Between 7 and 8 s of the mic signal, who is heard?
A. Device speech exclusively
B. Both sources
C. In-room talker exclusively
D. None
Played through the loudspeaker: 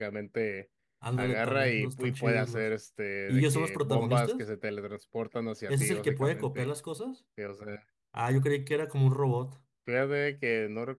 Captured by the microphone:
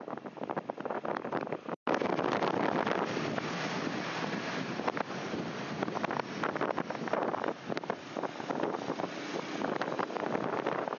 D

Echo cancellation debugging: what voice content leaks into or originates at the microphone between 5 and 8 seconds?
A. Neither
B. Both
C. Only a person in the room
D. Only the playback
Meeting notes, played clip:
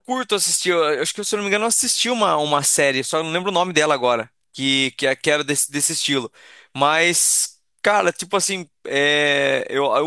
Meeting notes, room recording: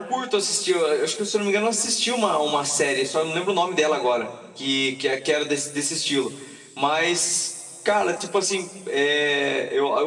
D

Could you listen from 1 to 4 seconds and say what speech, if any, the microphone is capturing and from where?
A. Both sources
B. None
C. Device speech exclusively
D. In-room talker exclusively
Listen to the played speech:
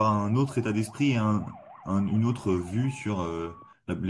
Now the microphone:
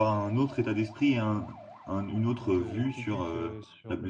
A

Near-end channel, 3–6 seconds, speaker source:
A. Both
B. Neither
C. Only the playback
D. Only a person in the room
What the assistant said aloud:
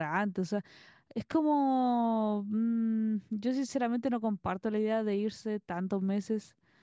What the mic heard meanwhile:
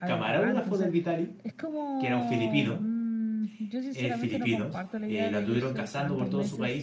A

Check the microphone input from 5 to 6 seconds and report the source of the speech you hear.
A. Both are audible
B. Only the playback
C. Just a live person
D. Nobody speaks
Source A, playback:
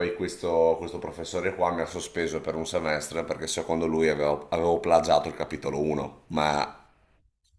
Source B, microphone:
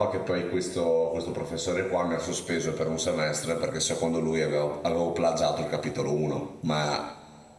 B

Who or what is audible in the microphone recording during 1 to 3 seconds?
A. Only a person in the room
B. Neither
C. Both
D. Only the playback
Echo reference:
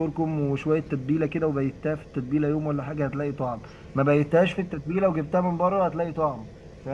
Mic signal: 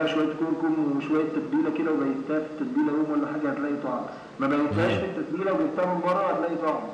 D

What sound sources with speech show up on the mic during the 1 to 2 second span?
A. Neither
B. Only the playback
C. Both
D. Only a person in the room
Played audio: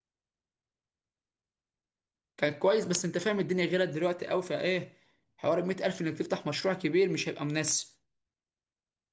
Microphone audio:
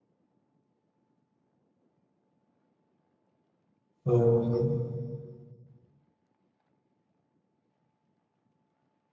A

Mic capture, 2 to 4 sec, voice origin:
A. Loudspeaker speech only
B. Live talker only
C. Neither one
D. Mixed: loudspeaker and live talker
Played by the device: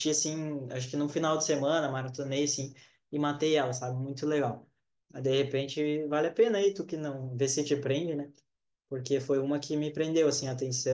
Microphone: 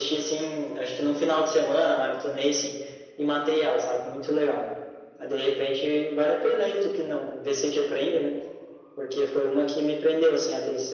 A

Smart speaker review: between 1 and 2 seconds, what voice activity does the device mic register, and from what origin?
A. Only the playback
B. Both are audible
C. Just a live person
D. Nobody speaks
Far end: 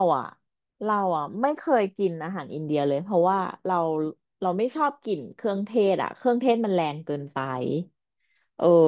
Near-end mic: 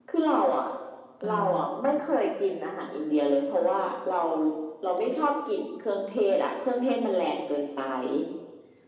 B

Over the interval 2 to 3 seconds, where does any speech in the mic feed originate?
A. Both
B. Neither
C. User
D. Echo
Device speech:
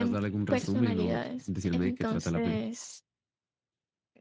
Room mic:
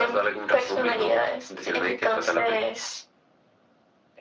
D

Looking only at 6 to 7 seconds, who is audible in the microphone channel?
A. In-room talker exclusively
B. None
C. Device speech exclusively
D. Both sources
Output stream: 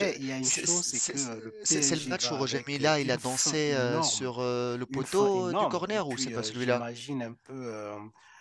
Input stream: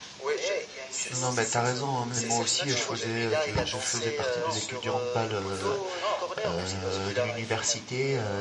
D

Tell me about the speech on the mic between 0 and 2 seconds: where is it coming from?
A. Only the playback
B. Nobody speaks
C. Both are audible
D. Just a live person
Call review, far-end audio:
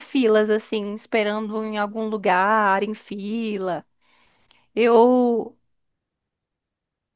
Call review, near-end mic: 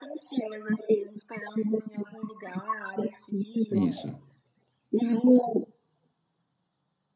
A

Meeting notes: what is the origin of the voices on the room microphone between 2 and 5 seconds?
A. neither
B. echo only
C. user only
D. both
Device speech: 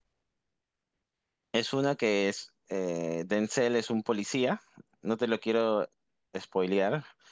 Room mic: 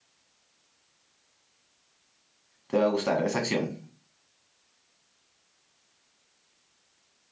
C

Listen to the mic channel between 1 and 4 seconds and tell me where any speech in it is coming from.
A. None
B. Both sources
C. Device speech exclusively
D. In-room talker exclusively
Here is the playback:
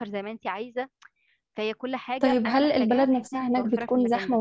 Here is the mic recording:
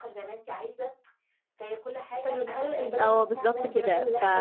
B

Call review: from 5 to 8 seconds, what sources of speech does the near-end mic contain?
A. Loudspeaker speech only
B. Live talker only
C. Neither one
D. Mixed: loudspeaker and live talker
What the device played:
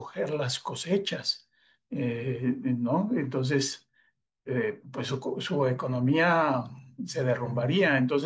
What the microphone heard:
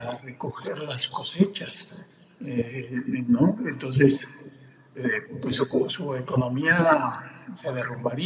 A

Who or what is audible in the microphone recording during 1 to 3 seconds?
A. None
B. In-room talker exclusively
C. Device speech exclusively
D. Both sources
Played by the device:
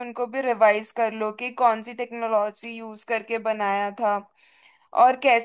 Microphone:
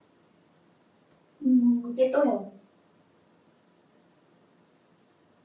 B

